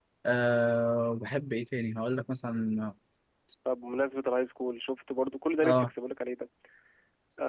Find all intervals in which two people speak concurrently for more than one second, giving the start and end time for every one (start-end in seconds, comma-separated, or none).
none